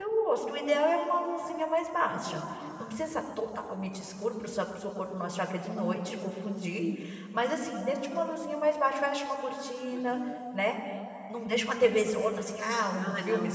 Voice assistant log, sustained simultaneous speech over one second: none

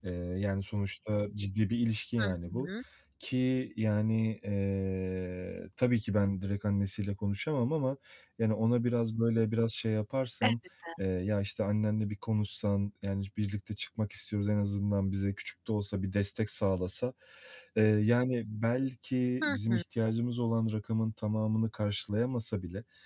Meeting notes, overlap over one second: none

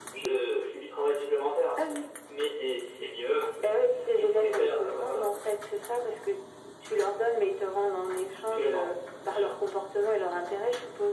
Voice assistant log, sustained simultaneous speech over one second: present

